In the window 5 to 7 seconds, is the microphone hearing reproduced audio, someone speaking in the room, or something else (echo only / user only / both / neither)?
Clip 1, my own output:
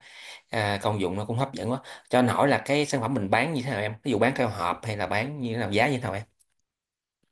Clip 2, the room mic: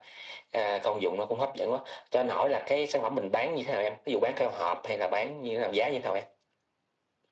echo only